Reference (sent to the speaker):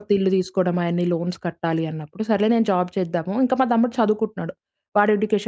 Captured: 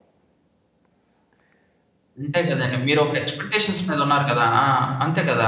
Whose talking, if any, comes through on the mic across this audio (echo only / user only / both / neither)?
user only